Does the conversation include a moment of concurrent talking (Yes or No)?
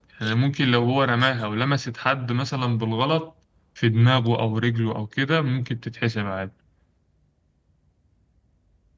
No